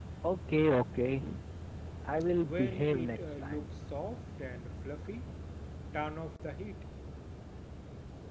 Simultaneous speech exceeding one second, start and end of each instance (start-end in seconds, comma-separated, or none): 2.4-3.7